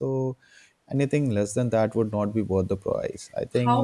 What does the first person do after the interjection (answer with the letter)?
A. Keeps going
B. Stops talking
B